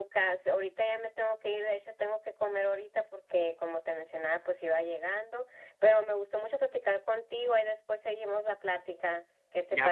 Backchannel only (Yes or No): No